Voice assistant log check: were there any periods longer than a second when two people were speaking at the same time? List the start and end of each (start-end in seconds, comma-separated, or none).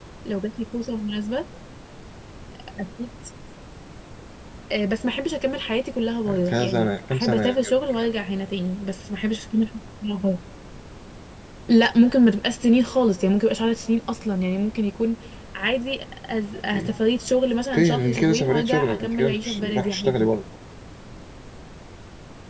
6.5-8.1, 17.7-20.3